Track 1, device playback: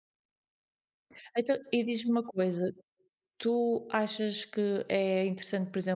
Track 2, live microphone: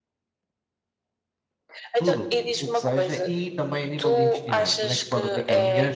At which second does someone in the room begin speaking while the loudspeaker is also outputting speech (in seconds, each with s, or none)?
1.9 s